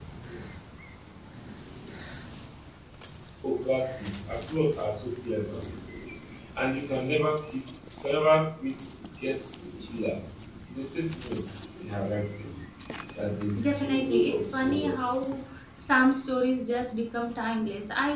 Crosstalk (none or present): present